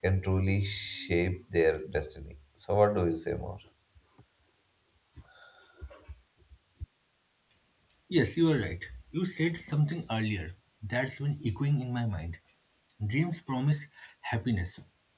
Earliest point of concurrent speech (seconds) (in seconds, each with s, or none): none